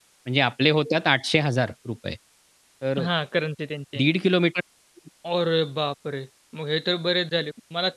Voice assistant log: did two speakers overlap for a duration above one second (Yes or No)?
No